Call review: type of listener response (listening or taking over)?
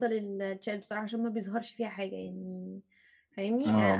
listening